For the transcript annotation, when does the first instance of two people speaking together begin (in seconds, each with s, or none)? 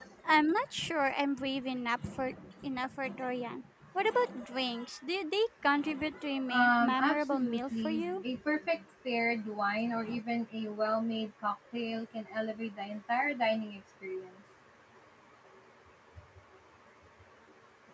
6.5 s